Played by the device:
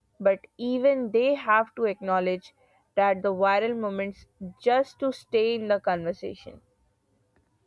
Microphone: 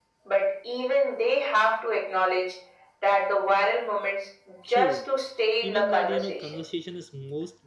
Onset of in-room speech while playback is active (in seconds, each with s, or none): 4.6 s